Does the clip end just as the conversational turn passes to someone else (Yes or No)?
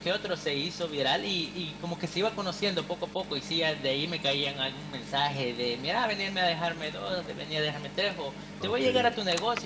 No